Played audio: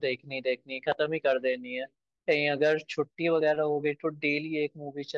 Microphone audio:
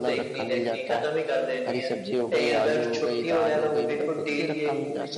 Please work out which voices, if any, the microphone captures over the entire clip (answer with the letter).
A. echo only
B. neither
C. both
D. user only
C